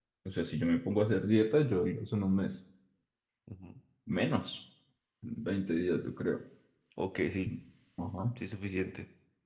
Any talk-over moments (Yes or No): No